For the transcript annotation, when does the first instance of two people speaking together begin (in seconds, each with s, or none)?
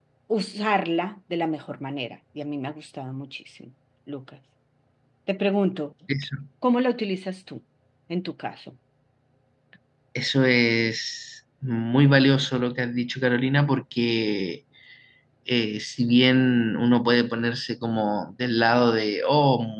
none